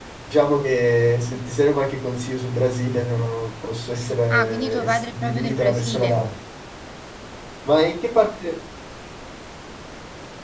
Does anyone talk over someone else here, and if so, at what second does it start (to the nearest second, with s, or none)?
4 s